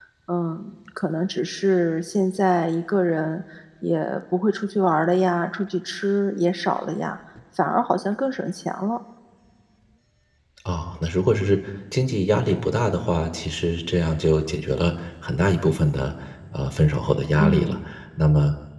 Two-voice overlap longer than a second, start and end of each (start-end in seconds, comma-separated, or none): none